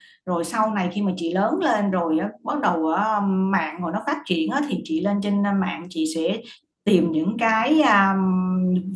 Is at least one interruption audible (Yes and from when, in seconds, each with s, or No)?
No